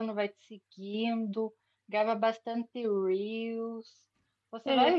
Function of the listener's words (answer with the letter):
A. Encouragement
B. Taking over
A